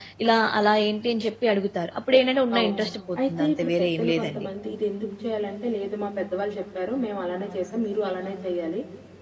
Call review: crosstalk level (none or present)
present